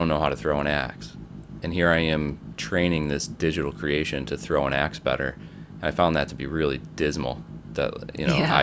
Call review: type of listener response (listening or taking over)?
listening